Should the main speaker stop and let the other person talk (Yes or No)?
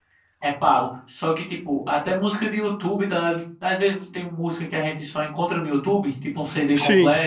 No